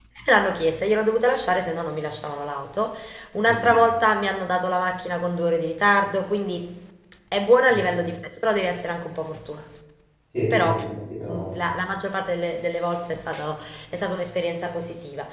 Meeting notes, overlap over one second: none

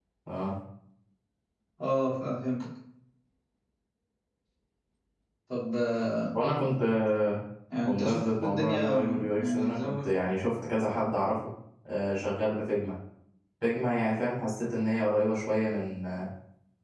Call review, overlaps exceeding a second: present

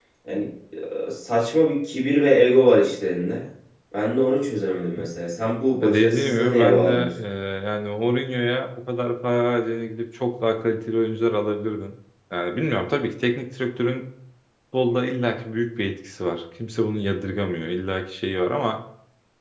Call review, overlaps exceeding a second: present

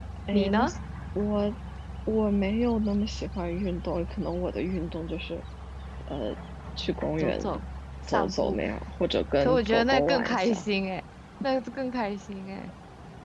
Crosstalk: present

